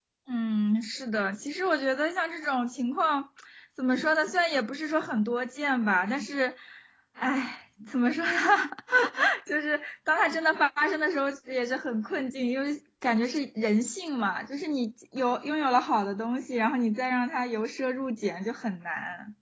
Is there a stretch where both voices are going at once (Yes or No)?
No